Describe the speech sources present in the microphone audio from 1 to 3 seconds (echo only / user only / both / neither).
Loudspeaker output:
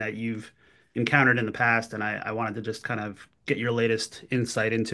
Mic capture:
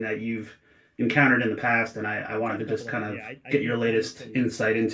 both